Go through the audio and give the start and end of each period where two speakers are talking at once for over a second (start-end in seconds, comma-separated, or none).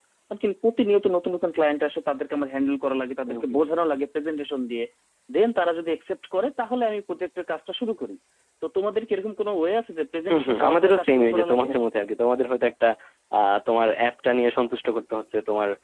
10.3-11.7